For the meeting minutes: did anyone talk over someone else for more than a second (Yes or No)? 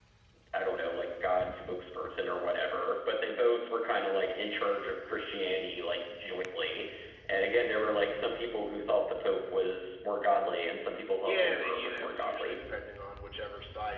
Yes